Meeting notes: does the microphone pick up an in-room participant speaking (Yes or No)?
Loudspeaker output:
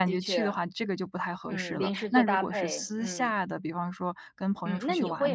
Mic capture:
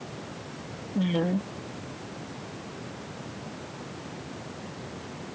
Yes